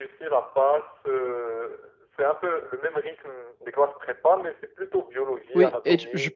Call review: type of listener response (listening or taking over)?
taking over